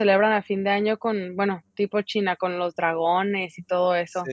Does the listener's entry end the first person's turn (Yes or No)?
Yes